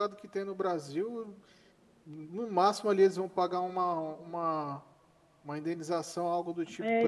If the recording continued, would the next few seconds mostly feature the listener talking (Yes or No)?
Yes